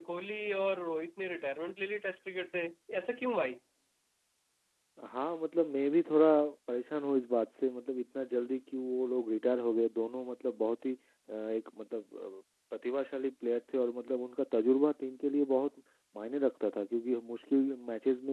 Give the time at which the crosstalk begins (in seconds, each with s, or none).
none